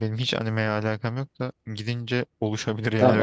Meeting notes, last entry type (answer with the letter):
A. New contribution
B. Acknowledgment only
A